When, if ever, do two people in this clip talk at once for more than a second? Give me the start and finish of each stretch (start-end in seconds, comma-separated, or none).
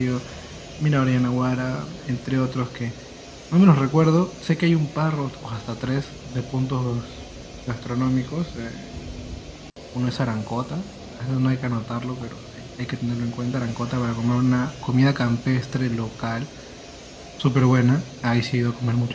none